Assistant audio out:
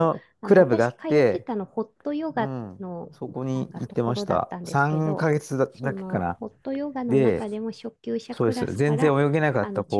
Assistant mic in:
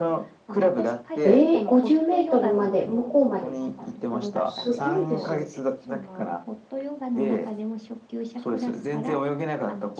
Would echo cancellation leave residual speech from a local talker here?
Yes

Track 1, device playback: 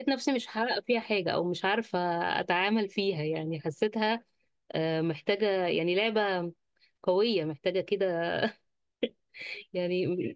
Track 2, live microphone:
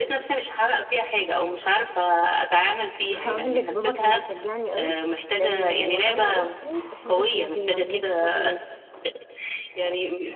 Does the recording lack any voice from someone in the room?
No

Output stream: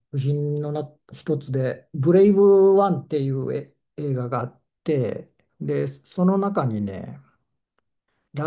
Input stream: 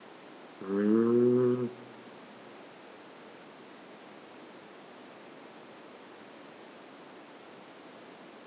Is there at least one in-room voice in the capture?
Yes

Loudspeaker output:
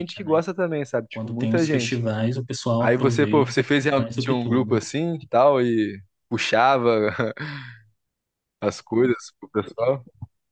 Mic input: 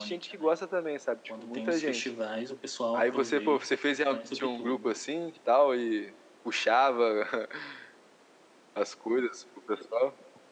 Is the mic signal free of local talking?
Yes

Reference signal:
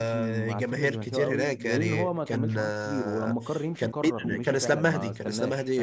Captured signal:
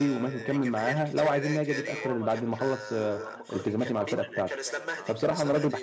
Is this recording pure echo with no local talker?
No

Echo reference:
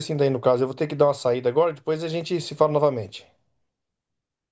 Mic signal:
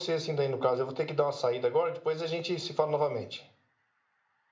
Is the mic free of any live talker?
Yes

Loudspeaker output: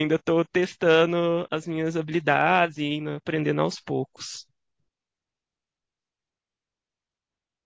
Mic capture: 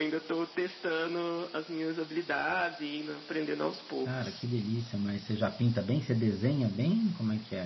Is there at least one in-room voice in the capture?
Yes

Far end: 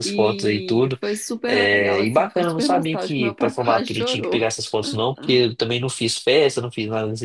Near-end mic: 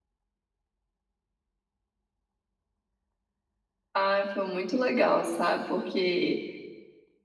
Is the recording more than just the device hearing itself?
Yes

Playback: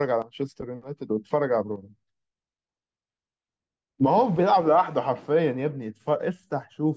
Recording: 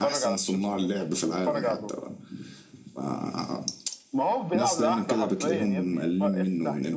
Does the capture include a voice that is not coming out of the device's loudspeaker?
Yes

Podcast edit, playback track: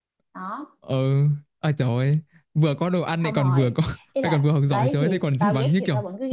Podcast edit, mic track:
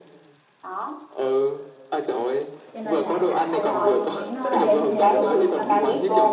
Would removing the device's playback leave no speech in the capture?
No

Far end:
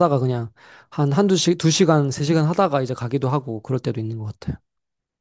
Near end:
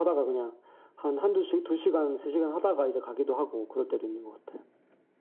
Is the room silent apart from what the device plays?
Yes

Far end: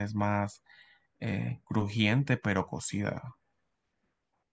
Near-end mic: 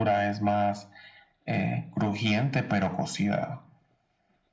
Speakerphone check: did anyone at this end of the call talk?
No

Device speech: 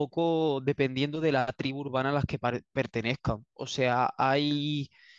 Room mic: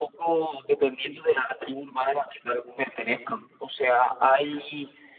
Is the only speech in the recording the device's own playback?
Yes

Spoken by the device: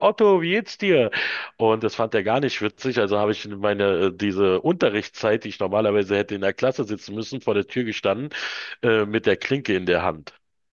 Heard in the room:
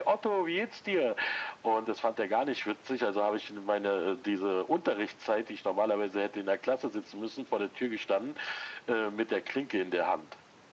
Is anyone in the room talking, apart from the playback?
No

